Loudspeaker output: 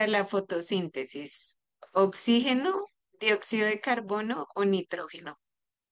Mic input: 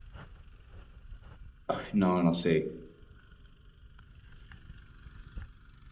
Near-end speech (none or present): present